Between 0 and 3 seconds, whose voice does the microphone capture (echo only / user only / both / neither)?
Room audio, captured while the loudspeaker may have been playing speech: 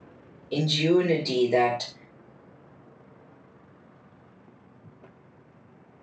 user only